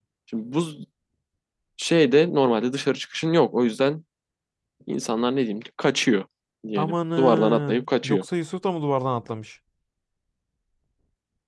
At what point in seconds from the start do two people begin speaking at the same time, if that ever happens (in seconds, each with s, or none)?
6.8 s